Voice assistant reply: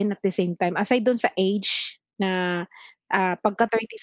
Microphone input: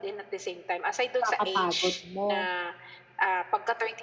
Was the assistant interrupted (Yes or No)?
Yes